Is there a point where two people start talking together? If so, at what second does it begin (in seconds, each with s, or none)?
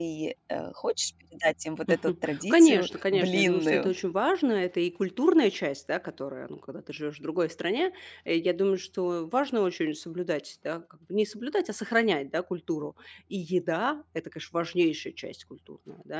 1.9 s